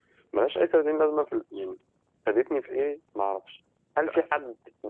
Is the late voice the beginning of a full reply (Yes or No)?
No